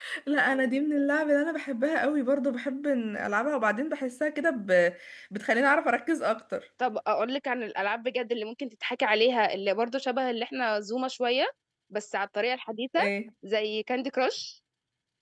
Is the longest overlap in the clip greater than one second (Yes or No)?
No